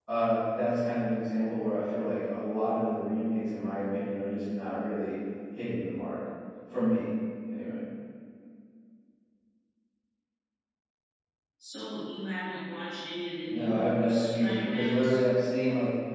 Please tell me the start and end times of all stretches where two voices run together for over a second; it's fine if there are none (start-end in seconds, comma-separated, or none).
13.5-15.2